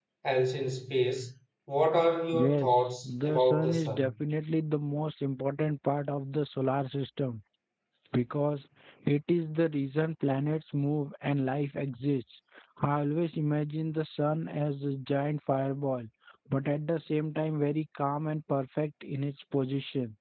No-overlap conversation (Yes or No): No